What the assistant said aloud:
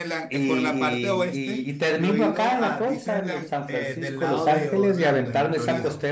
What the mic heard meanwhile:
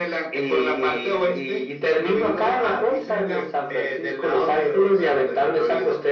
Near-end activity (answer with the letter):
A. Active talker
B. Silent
B